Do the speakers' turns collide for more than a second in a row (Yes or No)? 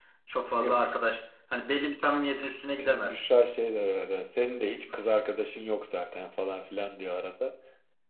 No